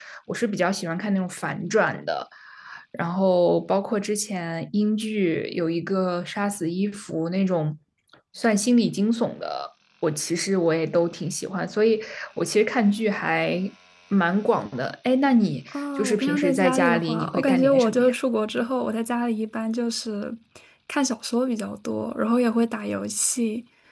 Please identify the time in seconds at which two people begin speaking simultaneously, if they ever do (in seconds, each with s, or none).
15.7 s